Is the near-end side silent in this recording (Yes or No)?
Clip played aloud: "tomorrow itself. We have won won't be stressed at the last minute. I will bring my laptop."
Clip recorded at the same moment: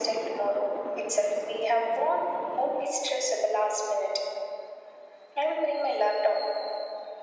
Yes